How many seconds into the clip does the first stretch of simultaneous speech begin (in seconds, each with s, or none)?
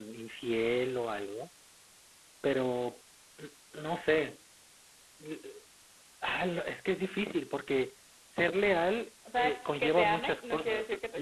9.2 s